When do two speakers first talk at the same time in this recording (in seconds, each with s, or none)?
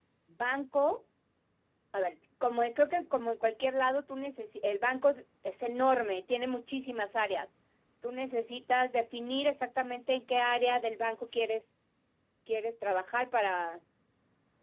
none